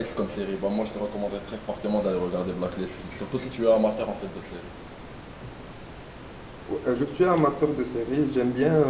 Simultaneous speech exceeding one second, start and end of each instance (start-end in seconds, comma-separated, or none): none